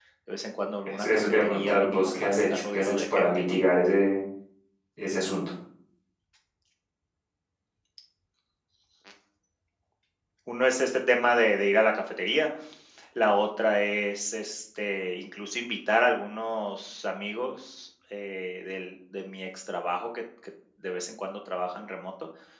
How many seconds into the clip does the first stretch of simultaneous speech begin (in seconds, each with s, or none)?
0.9 s